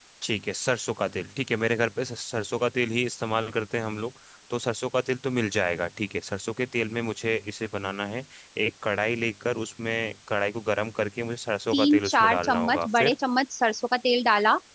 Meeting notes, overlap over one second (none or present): present